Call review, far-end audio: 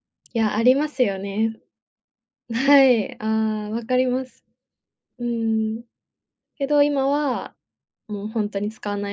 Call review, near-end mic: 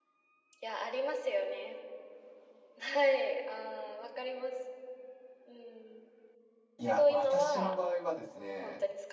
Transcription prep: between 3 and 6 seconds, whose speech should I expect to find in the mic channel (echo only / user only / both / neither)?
echo only